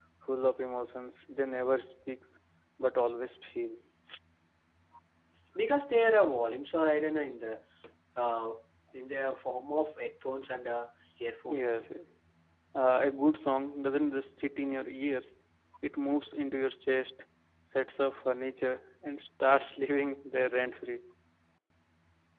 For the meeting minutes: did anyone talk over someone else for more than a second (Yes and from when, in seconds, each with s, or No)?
No